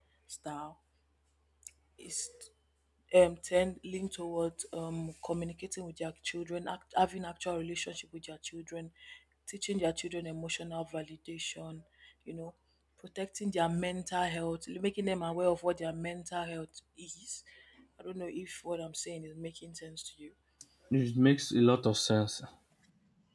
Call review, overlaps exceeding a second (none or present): none